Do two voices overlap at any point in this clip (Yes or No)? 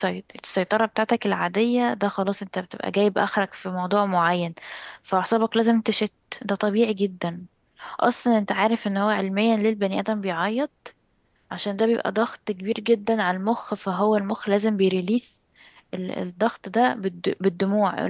No